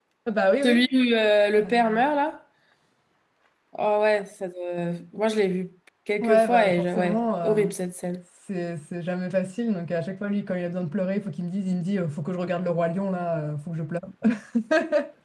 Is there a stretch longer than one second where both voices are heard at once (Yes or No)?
Yes